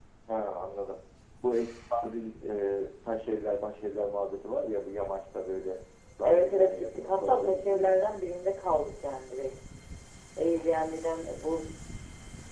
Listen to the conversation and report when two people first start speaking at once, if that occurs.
6.2 s

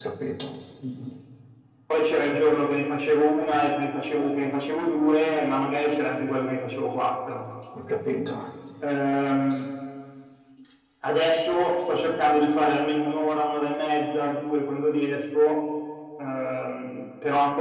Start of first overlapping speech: none

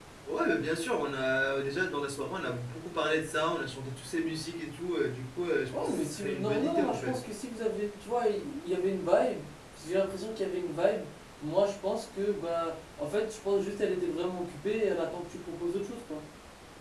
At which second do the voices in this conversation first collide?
5.7 s

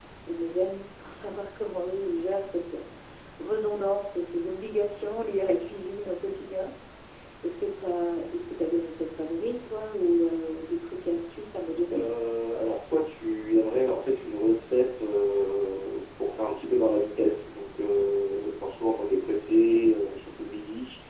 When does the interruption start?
none

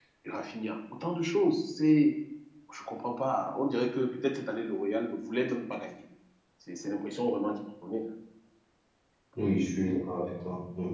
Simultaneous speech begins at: none

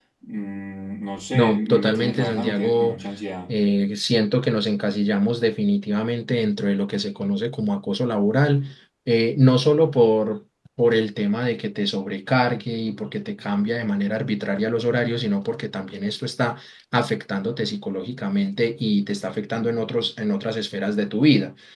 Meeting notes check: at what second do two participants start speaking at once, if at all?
1.3 s

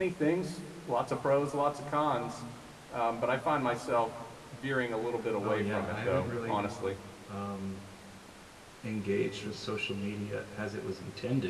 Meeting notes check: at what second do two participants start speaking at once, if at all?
5.4 s

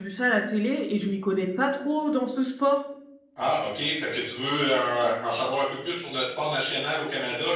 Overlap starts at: none

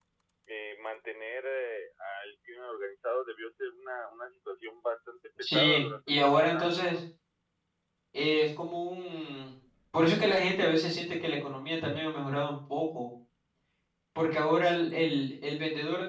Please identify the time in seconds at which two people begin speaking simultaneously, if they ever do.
5.4 s

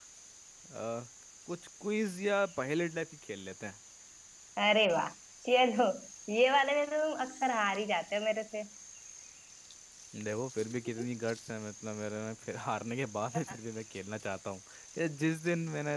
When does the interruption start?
none

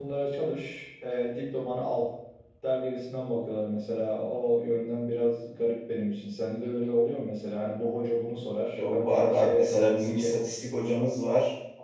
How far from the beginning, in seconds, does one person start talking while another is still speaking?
8.8 s

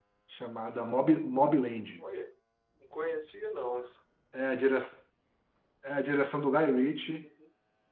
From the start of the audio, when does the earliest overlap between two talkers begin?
none

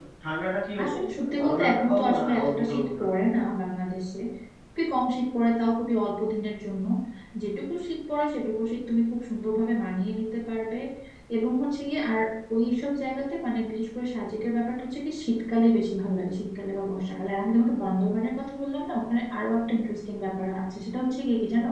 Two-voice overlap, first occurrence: 0.8 s

